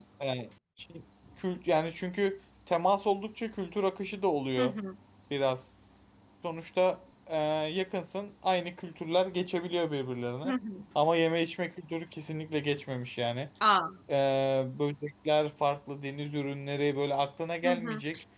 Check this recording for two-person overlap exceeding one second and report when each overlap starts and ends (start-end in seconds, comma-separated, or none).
none